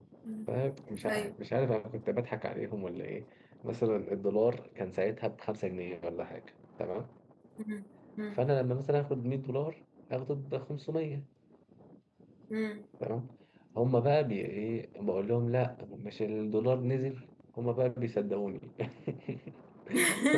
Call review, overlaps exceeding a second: none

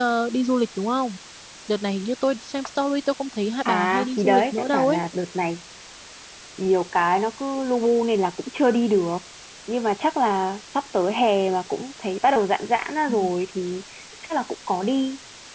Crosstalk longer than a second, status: present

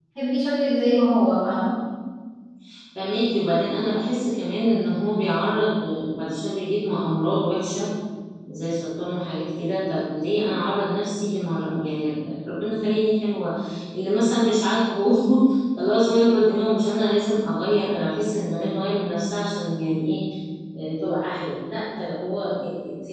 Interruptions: none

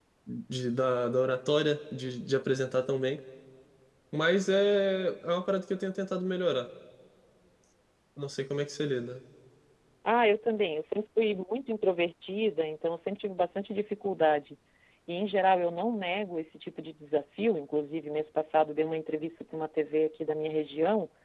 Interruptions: none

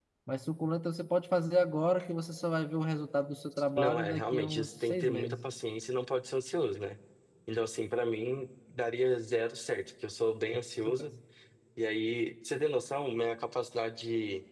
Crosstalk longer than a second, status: present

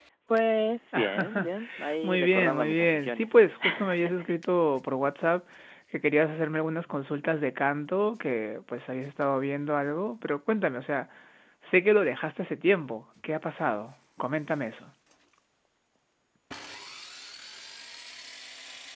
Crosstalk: present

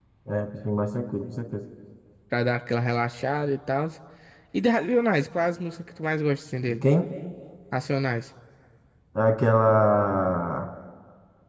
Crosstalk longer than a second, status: none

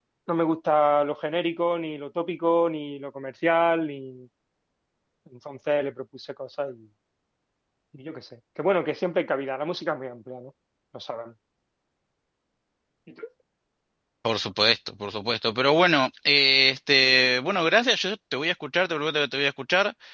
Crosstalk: none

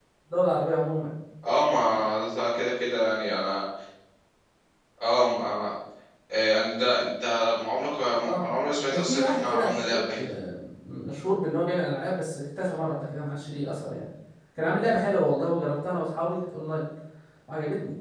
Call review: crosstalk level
present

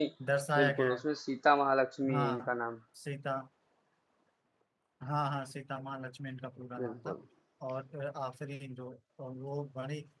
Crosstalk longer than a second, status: none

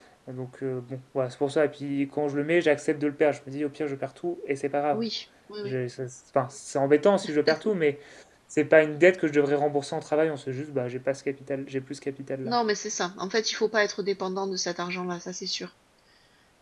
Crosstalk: none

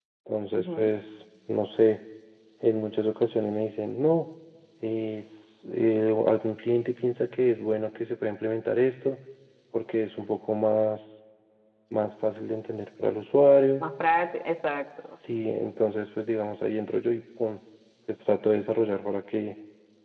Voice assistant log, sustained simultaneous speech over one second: none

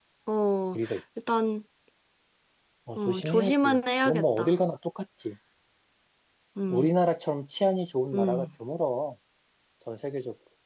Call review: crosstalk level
present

